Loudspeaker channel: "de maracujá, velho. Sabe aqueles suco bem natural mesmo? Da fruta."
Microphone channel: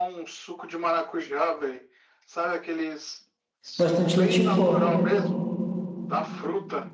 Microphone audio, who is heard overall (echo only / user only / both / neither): both